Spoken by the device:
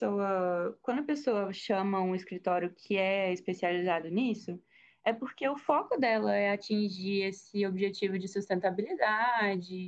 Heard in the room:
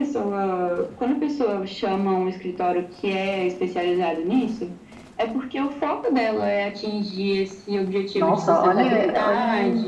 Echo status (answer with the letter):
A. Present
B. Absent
A